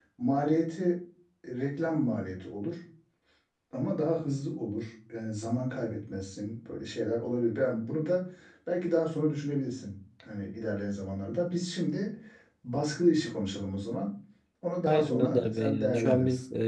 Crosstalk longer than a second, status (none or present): present